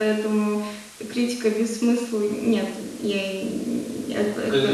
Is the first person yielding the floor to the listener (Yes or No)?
Yes